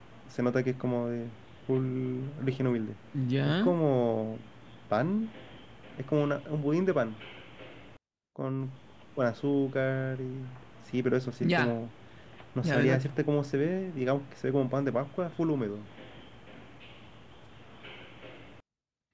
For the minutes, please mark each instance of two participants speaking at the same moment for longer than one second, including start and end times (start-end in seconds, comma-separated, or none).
none